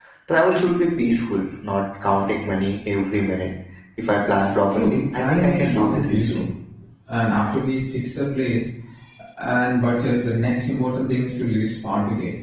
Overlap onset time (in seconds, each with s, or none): 4.7 s